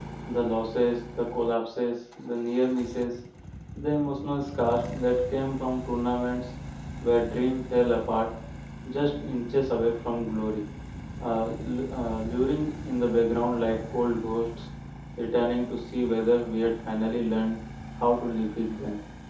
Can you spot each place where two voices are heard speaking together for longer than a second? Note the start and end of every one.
none

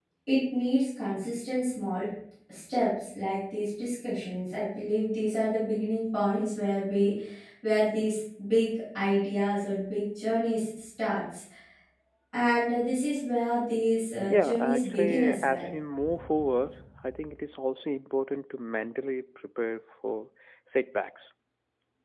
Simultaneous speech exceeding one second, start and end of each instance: 14.3-15.7

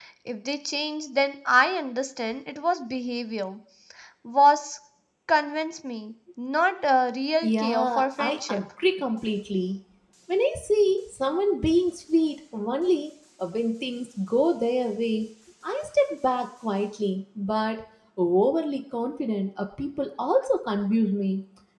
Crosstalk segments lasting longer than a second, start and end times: 7.4-8.6

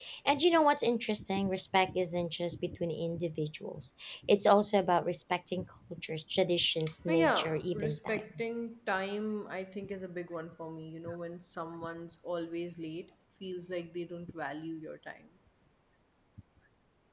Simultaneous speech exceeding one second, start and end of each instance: 7.1-8.4

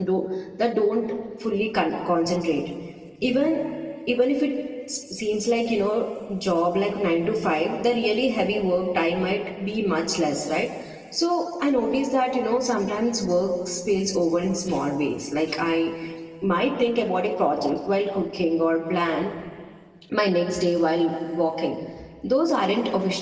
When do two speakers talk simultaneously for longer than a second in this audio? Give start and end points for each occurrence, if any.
none

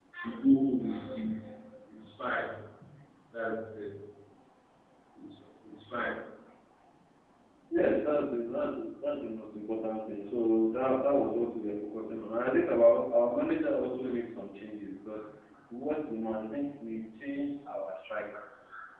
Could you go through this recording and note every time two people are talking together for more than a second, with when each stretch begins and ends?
none

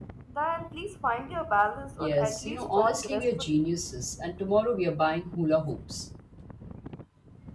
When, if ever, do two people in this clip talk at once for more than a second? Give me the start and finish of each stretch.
2.0-3.6

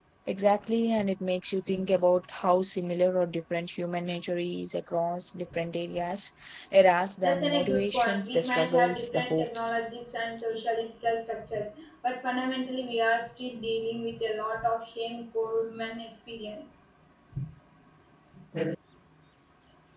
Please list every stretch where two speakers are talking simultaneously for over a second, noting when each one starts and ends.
7.2-9.8

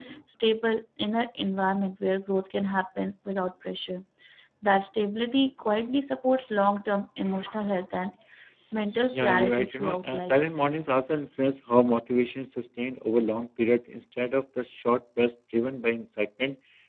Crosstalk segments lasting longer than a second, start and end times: 9.1-10.4

